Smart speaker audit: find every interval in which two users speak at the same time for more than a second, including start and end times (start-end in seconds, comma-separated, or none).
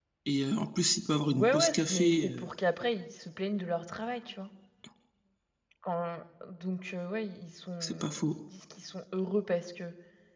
1.2-2.5